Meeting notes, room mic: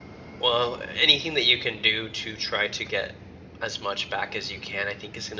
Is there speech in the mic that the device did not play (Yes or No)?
Yes